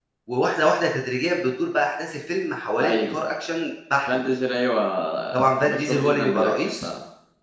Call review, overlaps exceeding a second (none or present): present